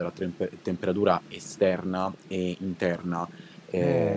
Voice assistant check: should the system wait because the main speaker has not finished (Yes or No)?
No